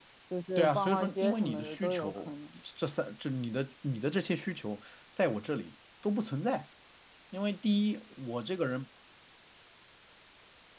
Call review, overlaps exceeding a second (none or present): present